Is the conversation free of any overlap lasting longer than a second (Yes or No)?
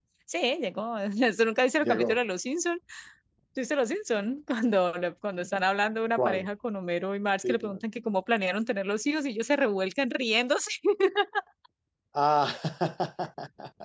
Yes